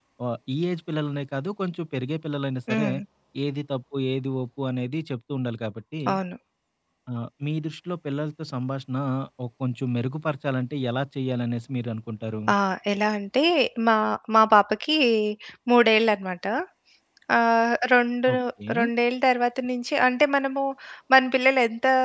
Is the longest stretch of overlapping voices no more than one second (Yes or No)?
Yes